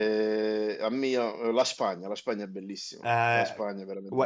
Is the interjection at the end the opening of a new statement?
Yes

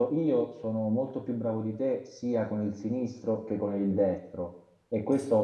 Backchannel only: Yes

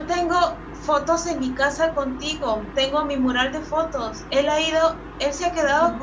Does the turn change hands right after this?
No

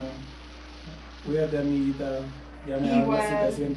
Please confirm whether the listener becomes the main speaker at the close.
No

